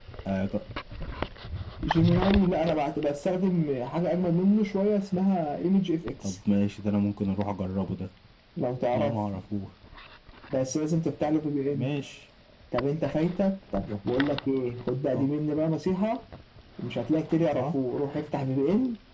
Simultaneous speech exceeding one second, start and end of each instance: none

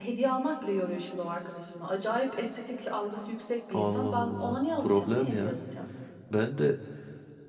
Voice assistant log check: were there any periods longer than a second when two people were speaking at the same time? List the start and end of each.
3.7-5.6

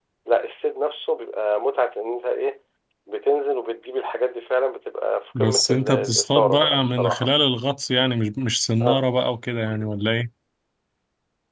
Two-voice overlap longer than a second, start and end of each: 5.4-7.3

